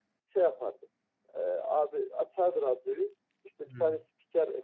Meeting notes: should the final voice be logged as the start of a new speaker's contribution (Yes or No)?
No